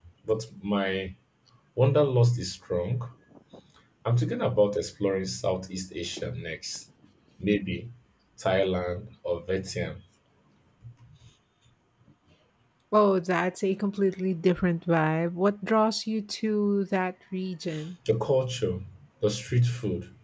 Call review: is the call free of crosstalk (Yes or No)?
Yes